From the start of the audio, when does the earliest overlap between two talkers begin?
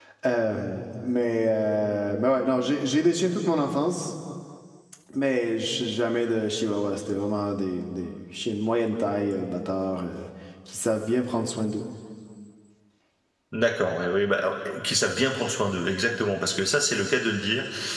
none

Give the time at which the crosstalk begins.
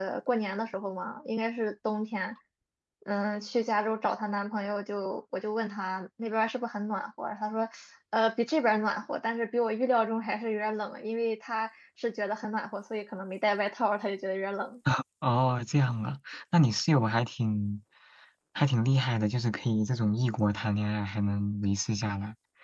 none

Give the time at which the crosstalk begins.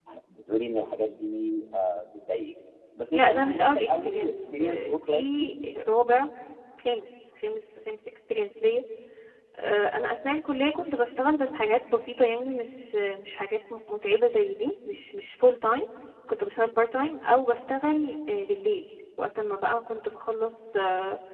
3 s

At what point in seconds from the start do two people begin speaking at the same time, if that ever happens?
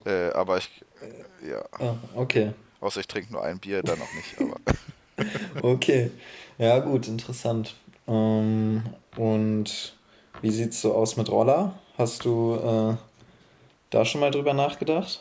none

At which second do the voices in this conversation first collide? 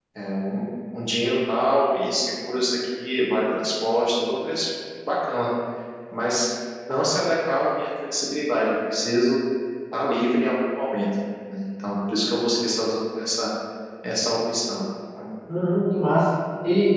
none

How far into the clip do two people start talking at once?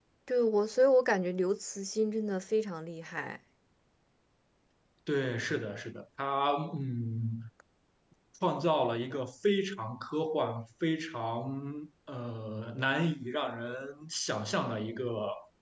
none

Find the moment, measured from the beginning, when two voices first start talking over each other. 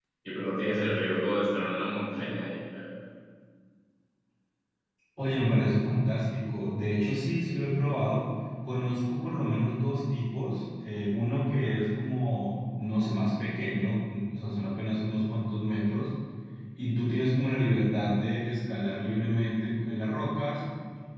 none

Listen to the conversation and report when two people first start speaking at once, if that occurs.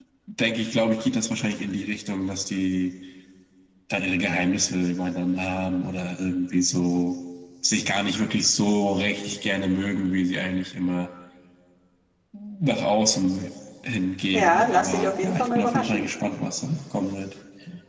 14 s

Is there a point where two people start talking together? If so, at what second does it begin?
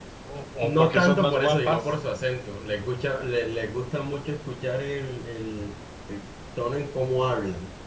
1 s

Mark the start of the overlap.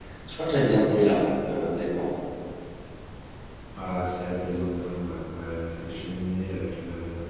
none

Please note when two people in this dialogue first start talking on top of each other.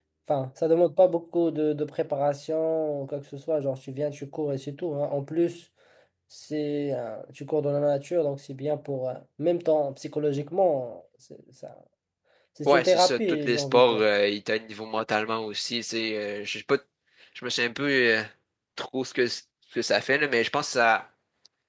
13 s

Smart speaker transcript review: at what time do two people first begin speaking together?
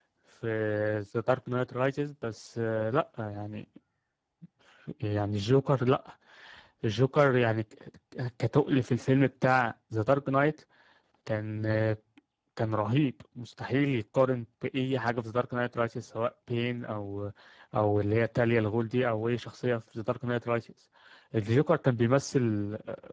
none

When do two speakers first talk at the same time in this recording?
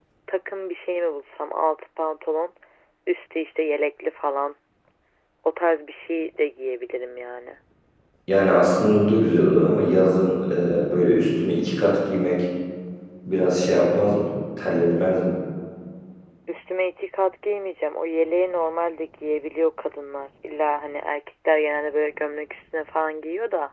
none

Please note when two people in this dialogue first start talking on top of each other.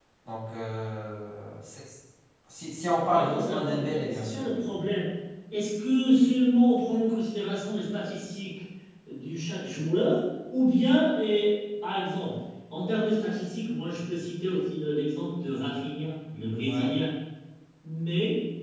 3 s

